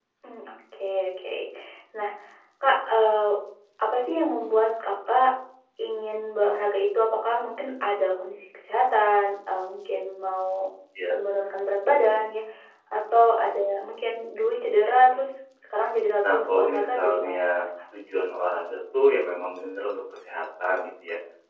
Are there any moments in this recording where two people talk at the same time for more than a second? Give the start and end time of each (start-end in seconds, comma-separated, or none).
16.2-17.6